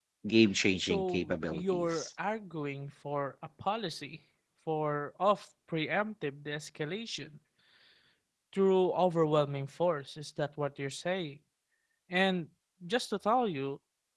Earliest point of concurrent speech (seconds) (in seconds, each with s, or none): 0.8 s